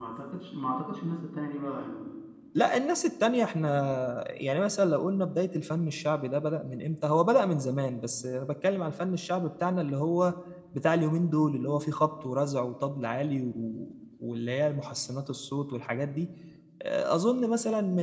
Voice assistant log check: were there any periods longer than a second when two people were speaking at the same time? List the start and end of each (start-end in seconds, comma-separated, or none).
none